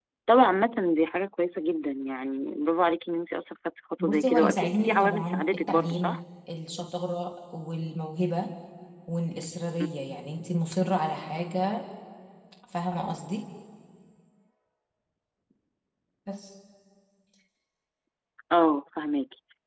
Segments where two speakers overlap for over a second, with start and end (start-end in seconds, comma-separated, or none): 4.0-6.2